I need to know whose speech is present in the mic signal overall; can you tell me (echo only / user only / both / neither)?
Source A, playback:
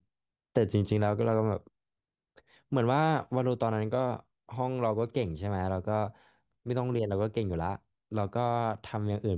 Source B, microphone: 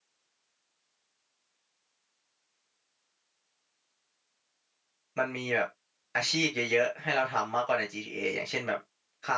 user only